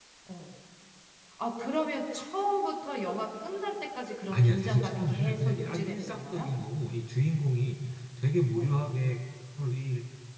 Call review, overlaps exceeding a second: present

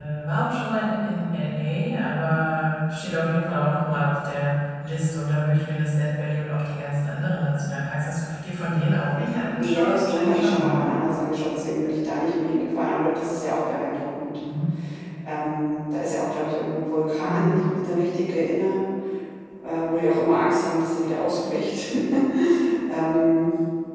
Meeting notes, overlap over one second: present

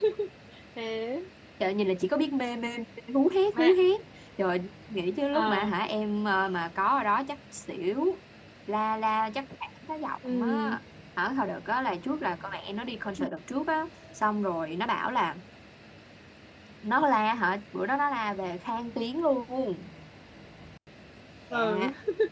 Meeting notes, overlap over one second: none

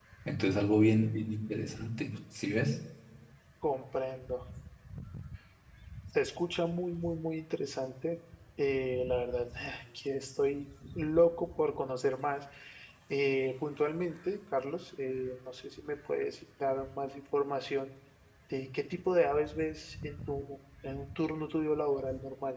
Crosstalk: none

